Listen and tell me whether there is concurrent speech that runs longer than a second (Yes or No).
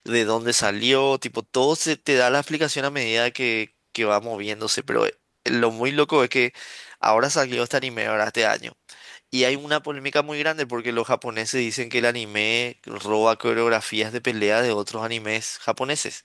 No